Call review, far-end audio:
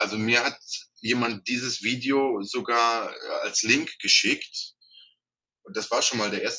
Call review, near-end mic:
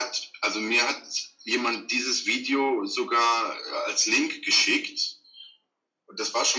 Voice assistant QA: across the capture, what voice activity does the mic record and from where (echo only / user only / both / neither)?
echo only